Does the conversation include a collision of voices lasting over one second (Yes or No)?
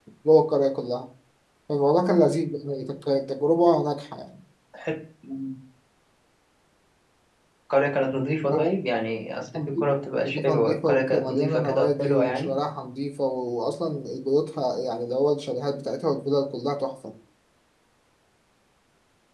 Yes